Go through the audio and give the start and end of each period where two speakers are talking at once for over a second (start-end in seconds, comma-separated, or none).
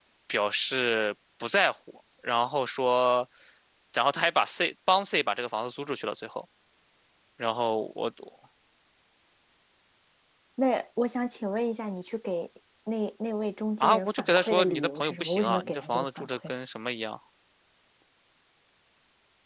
13.8-16.3